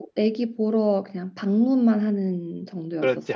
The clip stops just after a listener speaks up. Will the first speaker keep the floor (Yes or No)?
No